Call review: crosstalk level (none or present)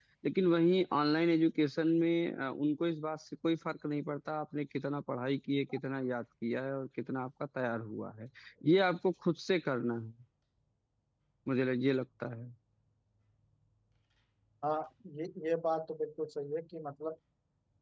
none